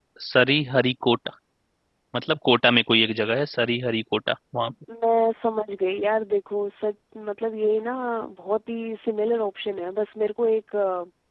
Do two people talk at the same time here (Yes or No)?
No